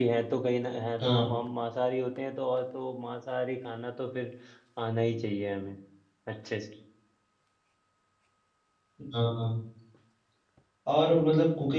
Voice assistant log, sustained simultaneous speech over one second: none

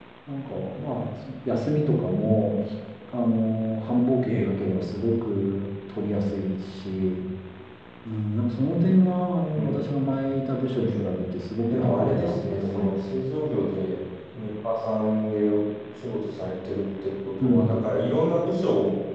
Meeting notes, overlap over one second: present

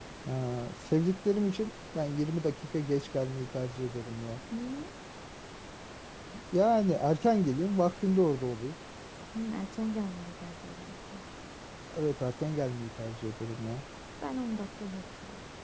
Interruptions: none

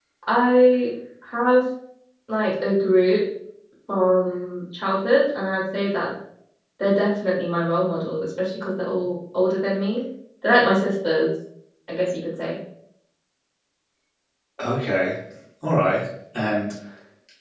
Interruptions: none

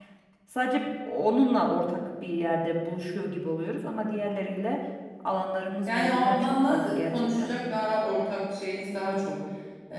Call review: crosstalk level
present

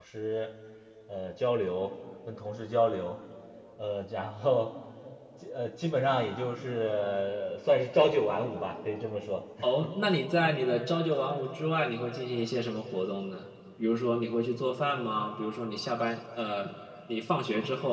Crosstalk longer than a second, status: none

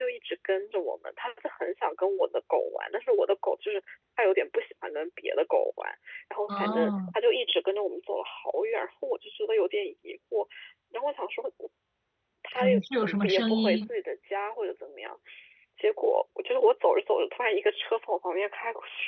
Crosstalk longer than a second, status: present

